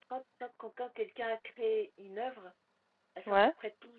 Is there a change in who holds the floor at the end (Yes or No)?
No